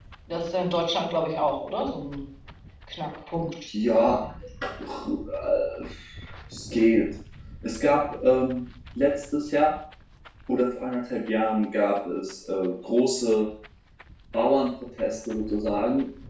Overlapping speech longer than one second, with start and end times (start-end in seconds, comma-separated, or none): none